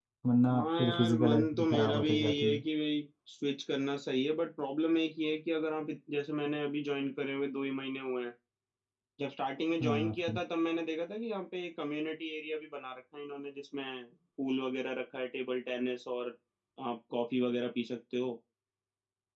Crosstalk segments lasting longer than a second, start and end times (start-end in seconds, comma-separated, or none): 0.5-2.6